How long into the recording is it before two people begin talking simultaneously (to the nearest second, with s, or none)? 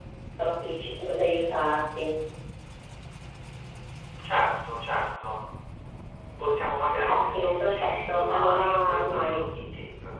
7 s